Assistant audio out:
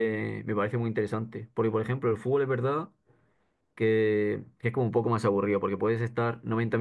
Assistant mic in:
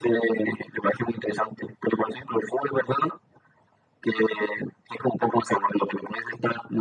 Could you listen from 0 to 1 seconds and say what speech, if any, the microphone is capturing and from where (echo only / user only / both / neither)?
echo only